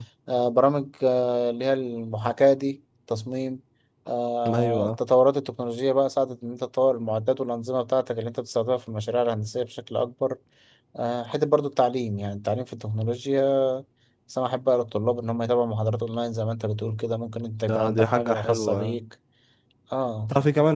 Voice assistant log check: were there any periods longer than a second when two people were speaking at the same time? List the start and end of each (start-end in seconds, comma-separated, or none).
17.7-19.0